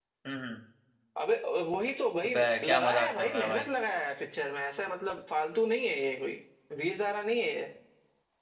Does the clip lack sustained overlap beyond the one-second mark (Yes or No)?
No